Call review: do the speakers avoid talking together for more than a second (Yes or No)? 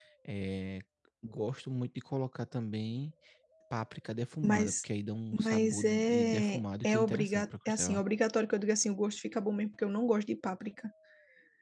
No